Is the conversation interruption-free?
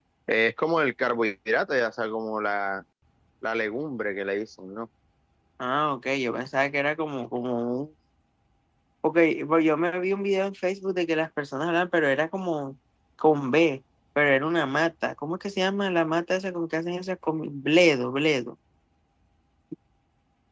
Yes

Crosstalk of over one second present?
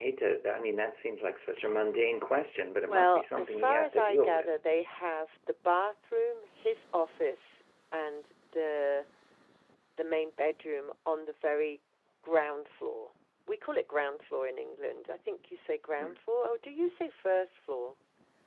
Yes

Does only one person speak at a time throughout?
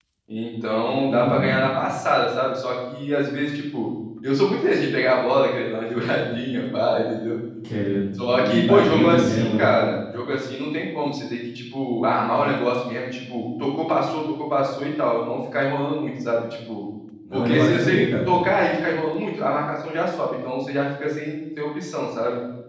No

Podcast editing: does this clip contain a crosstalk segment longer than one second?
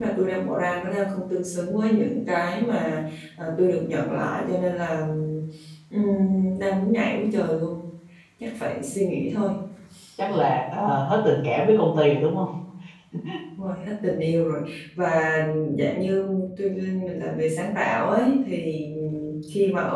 No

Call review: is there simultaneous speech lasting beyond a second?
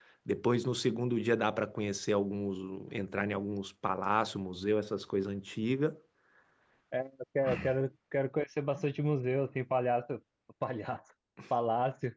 No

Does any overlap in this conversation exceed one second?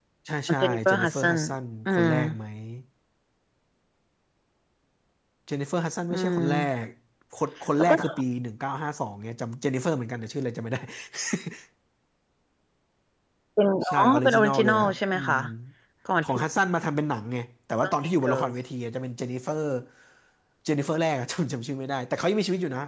Yes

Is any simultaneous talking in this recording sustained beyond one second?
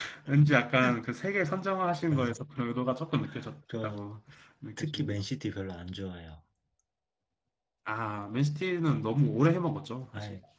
No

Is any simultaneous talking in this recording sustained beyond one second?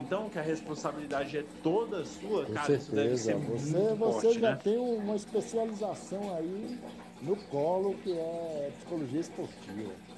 Yes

